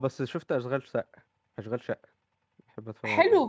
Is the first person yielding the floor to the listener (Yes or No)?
Yes